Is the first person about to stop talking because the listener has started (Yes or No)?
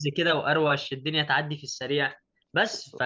No